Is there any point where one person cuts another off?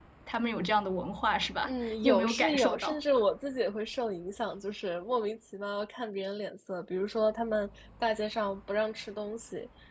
Yes, from 1.7 s

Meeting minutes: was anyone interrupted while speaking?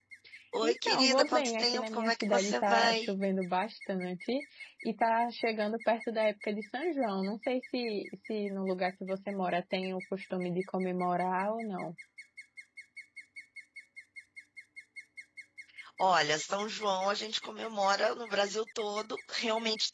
Yes, from 0.6 s

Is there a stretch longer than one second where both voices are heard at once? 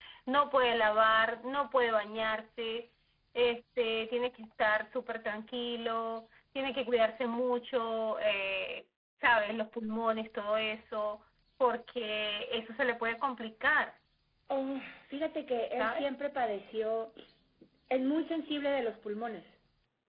No

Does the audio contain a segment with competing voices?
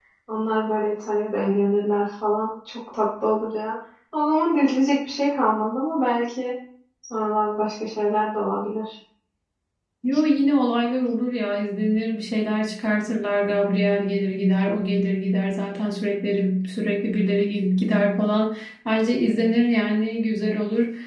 No

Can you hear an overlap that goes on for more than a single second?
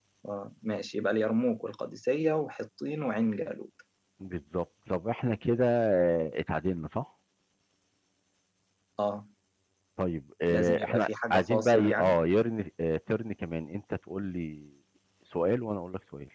Yes, from 10.5 s

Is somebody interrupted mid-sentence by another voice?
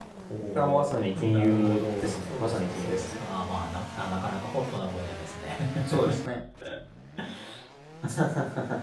Yes, from 0.6 s

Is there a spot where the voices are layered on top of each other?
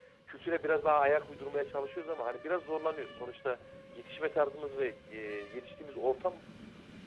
No

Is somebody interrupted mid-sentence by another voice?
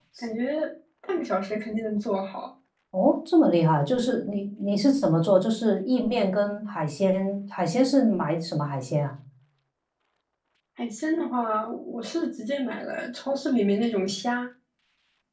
No

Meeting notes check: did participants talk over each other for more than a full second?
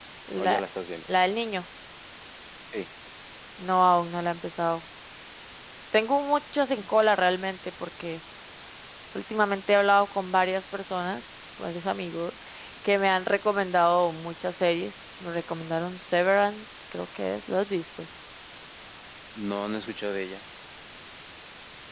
No

